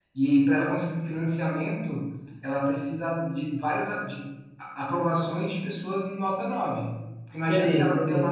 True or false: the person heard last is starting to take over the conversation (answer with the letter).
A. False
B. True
A